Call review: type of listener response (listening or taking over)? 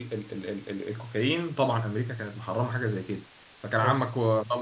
listening